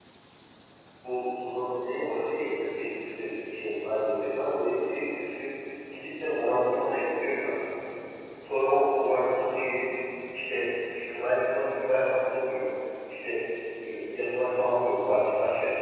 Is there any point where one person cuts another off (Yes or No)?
No